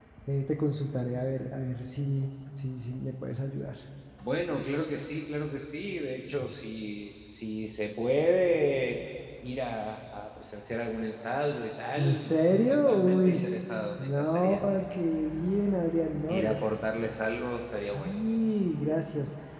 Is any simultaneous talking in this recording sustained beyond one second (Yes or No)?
Yes